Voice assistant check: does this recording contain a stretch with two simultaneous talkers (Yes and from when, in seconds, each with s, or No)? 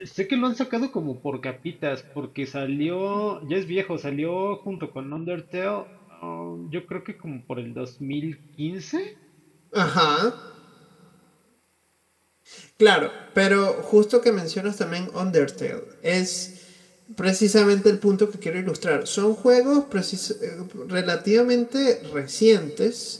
No